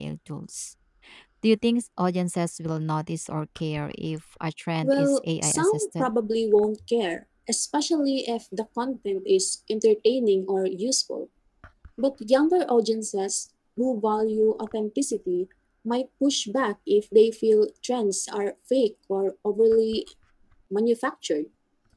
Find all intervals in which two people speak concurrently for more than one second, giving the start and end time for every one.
4.8-6.1

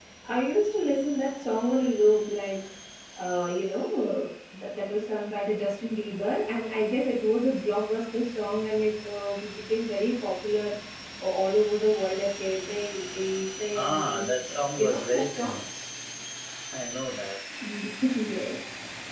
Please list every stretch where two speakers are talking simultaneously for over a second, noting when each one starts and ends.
13.7-15.6

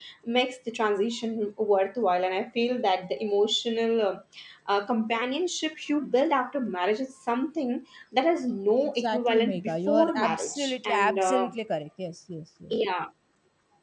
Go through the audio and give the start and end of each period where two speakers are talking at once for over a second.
8.8-11.5

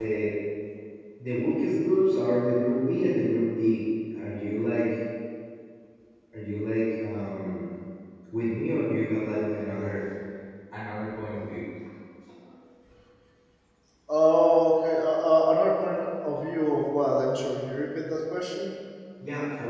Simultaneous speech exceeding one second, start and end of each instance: none

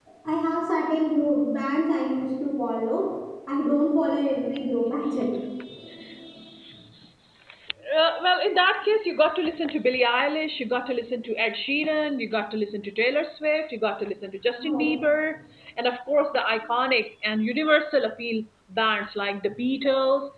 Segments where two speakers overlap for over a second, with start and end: none

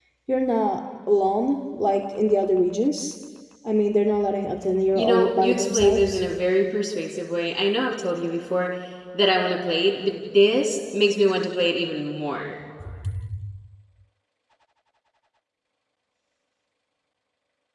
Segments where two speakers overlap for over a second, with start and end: 5.0-6.2

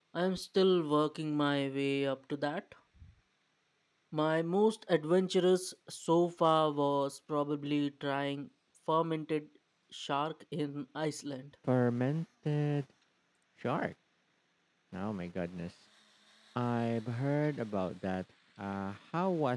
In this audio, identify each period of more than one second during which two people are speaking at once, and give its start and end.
none

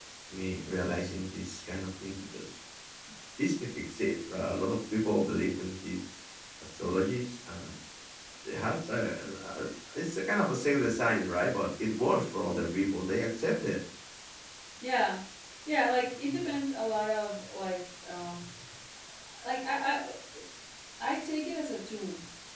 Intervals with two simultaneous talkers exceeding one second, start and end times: none

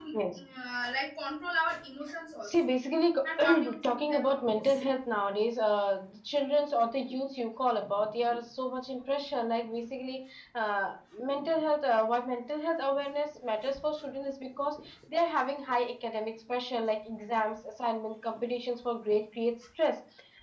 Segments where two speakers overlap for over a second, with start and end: 3.4-4.6

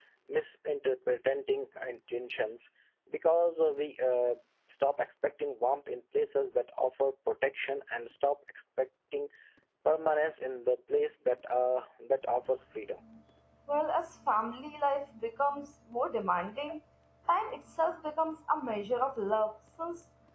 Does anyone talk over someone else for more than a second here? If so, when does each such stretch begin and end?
none

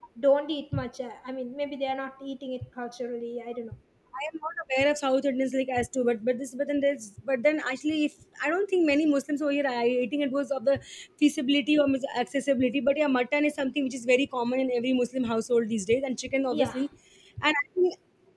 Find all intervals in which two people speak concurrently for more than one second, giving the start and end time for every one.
none

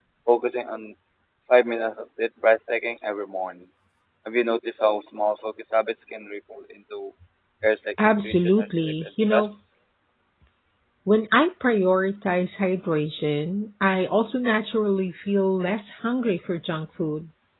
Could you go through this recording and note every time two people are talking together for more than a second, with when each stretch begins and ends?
8.0-9.5

